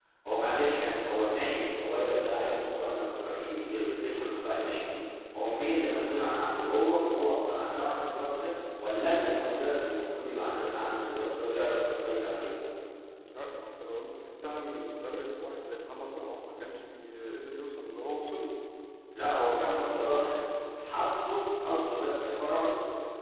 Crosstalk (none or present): none